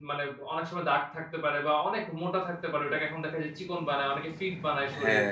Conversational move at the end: taking over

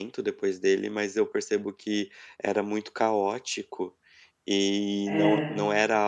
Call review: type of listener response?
listening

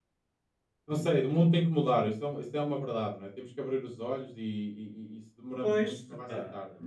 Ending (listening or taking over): taking over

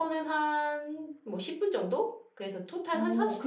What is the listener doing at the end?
taking over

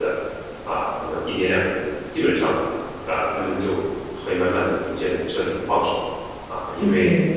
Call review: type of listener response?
listening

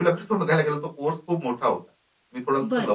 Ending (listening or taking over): taking over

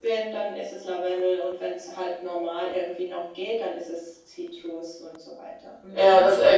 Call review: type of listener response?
taking over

